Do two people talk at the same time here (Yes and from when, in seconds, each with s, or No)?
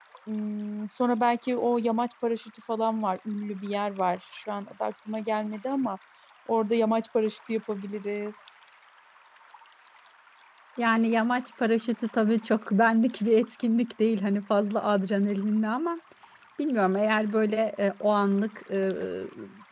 No